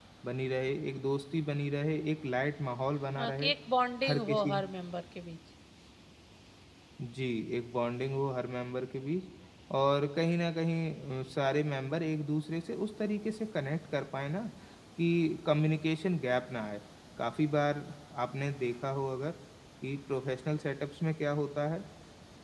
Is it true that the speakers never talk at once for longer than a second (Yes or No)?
Yes